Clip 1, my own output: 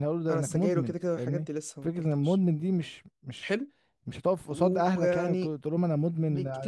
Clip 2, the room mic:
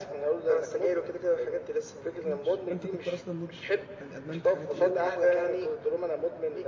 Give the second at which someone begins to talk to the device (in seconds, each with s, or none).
2.2 s